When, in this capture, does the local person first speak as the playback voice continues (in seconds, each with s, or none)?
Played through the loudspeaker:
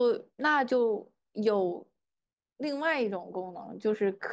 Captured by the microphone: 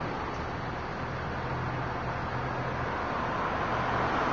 none